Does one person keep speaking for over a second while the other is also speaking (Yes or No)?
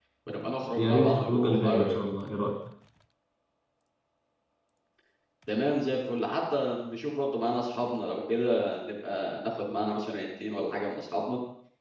Yes